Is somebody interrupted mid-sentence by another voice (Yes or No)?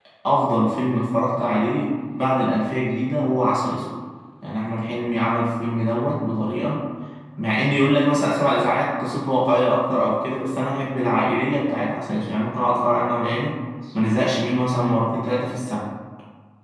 No